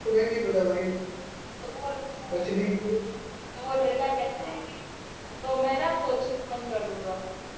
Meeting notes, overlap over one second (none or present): none